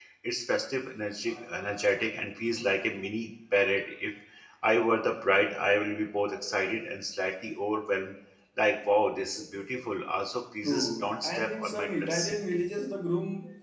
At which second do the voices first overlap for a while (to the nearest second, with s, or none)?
11 s